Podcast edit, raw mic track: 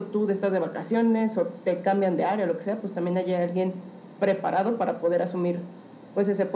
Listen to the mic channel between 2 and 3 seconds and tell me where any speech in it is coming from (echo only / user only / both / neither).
echo only